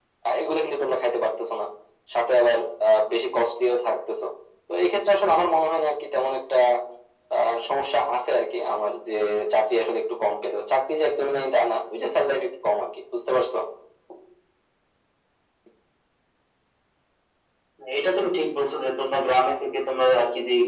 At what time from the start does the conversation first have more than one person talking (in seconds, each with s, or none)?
none